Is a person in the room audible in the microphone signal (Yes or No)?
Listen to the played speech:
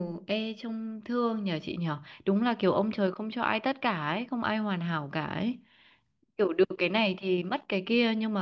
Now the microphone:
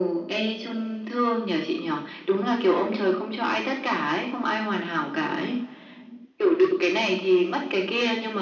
No